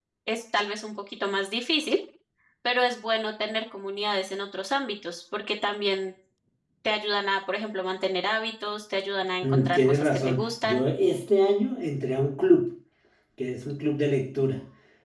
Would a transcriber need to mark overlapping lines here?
Yes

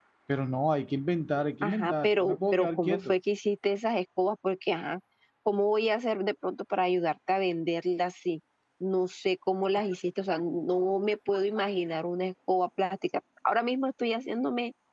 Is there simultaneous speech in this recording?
Yes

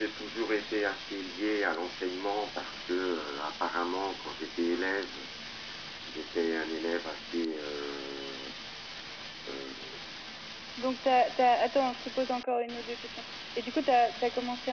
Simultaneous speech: No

